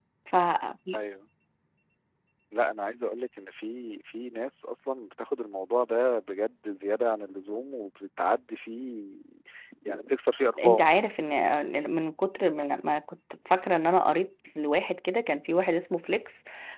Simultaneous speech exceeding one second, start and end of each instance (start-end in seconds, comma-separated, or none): none